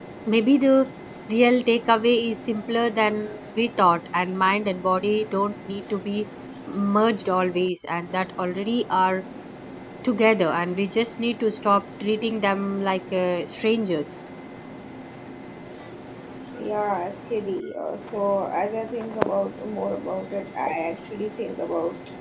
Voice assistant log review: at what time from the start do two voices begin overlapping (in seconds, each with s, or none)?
none